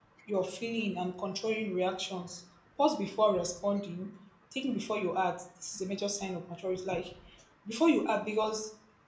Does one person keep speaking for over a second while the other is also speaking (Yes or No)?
No